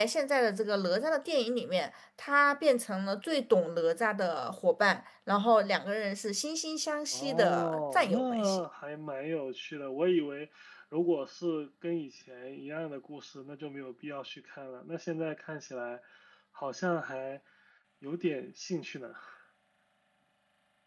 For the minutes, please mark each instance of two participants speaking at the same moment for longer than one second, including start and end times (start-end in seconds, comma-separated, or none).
7.1-8.6